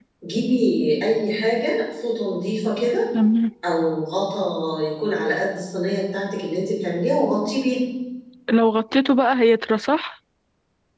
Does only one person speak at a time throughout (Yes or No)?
Yes